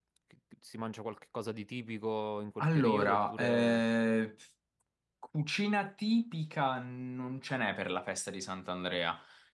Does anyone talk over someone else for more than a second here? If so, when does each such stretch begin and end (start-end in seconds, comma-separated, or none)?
2.6-3.8